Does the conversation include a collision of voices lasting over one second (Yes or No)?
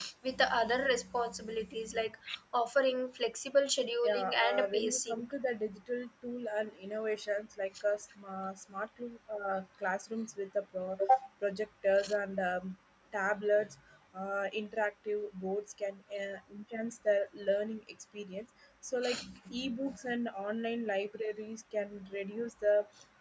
Yes